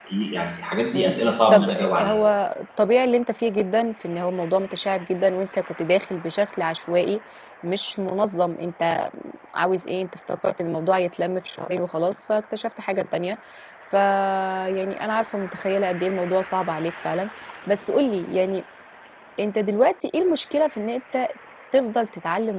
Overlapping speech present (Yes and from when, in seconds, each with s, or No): Yes, from 1.0 s